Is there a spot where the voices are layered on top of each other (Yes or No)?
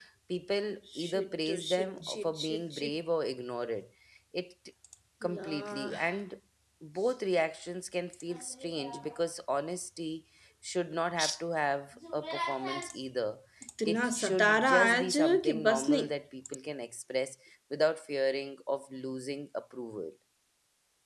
Yes